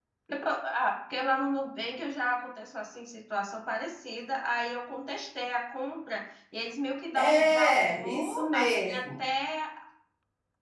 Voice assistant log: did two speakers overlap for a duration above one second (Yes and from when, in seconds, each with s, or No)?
Yes, from 7.2 s